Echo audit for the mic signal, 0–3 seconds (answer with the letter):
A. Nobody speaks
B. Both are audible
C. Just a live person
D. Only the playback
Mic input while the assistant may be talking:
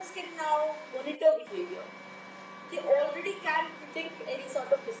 D